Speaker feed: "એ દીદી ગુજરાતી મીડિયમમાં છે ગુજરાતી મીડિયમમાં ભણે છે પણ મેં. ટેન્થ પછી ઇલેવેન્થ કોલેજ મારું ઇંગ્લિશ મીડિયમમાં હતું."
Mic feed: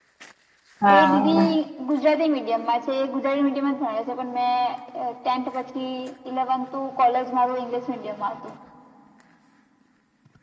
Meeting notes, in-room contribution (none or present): present